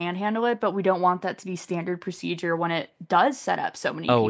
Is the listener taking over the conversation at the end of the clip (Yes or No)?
Yes